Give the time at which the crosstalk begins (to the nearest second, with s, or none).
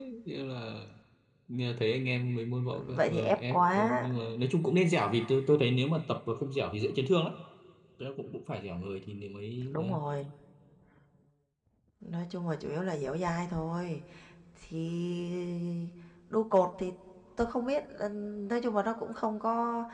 3 s